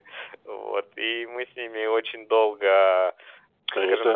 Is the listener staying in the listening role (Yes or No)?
No